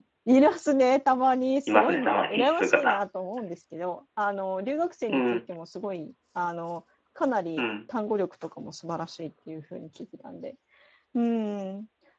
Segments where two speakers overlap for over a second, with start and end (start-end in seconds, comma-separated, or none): 1.7-3.0